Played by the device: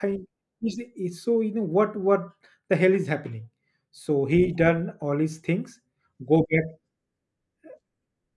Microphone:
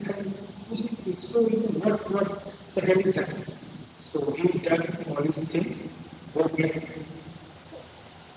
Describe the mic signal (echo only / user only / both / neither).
echo only